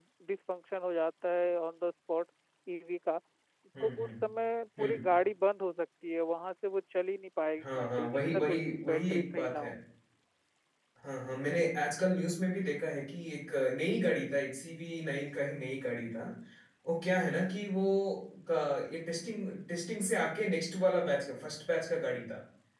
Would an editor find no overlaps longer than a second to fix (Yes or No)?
No